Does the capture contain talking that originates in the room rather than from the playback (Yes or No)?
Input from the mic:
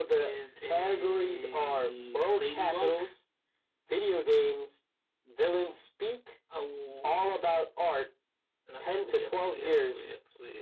No